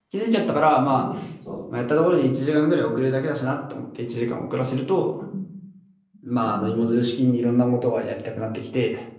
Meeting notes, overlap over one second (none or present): none